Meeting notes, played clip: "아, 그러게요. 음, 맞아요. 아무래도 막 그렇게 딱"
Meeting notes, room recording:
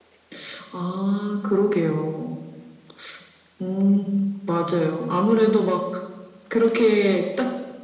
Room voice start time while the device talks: none

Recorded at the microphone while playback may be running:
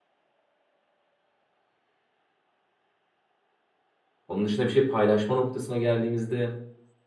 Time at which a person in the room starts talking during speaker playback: 4.3 s

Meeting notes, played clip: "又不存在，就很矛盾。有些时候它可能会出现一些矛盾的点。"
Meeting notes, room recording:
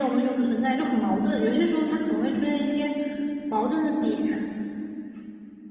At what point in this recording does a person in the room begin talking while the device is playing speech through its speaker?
none

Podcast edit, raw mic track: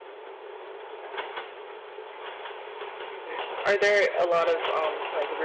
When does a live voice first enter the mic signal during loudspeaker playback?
3.1 s

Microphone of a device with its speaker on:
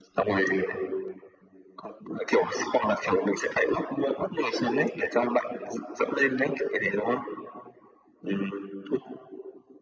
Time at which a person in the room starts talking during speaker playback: none

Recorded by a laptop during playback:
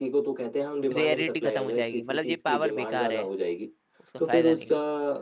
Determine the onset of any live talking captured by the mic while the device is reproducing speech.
1.0 s

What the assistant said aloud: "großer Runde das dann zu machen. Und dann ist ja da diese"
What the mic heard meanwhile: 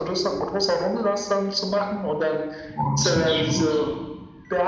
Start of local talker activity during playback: 2.7 s

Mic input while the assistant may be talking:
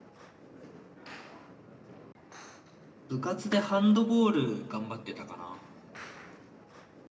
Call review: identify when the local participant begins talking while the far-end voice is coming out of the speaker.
3.1 s

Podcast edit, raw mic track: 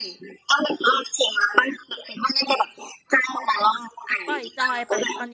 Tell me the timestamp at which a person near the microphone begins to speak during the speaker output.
4.3 s

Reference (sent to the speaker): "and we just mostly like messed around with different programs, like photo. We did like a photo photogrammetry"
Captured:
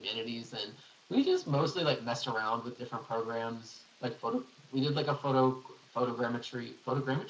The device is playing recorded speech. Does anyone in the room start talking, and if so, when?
none

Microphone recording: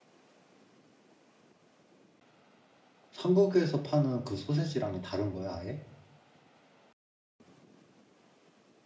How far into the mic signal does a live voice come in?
3.1 s

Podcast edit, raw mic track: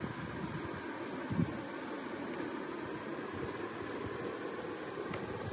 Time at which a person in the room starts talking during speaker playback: none

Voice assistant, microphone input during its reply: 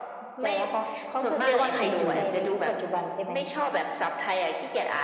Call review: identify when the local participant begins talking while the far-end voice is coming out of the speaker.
1.4 s

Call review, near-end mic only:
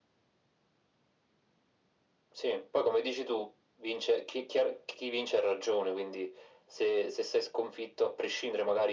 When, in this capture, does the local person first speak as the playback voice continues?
none

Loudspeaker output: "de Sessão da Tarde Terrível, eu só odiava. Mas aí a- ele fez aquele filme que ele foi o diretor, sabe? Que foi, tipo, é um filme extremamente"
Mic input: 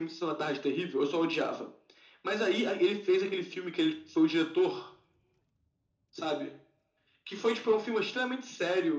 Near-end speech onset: none

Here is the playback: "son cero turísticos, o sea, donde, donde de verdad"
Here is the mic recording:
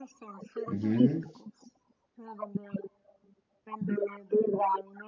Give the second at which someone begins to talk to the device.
0.7 s

